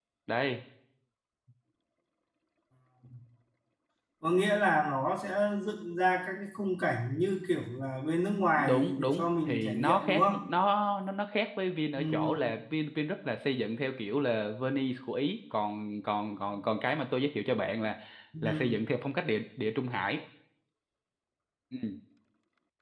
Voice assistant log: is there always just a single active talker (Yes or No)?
No